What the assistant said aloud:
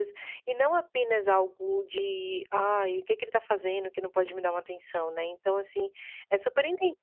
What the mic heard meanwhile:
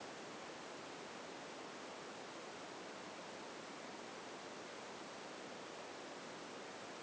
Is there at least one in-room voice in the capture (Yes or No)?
No